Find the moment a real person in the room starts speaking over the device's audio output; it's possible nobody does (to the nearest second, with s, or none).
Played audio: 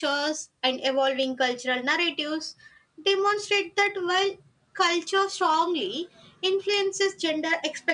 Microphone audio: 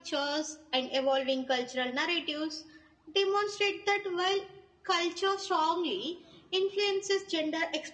none